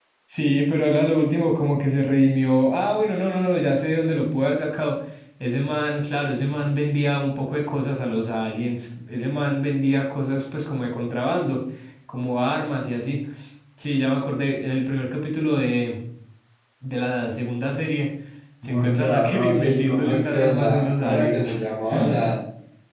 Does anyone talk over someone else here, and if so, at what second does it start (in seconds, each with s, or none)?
18.6 s